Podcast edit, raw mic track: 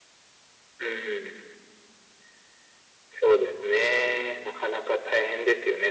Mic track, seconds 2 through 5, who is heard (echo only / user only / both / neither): echo only